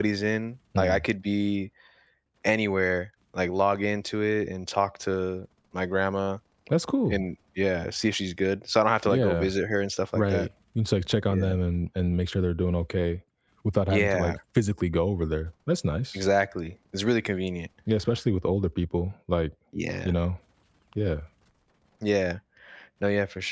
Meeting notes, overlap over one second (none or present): none